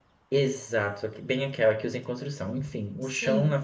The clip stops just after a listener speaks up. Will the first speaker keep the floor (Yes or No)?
Yes